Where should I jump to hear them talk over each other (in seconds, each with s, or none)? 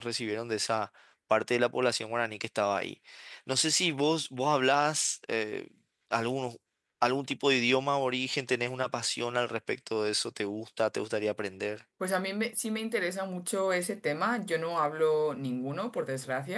none